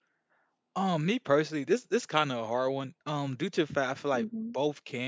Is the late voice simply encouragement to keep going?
Yes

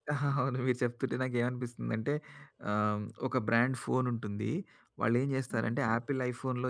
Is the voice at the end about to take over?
No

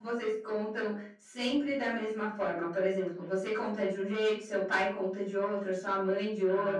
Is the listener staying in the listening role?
No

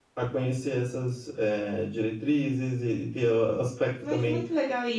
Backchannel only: No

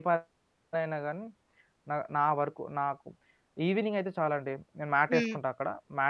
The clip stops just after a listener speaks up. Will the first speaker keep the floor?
Yes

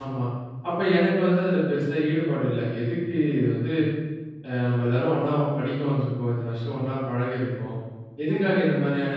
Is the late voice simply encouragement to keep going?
Yes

